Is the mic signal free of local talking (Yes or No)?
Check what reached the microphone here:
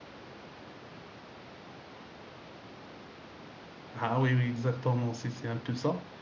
No